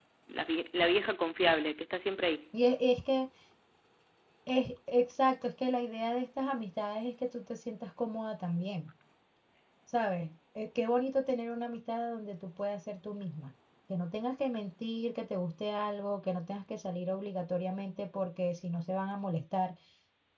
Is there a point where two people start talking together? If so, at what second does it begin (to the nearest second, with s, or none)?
none